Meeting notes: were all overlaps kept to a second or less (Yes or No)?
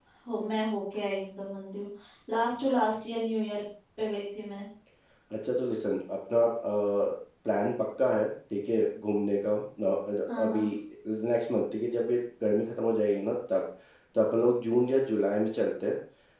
Yes